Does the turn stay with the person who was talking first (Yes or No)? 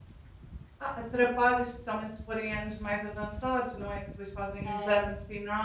Yes